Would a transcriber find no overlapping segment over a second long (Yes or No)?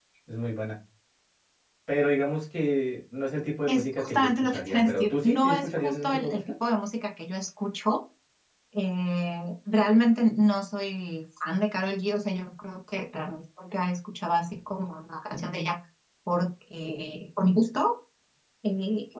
No